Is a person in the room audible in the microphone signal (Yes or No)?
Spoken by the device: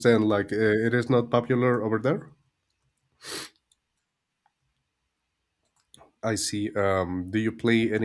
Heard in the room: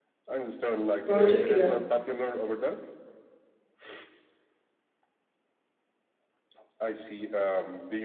Yes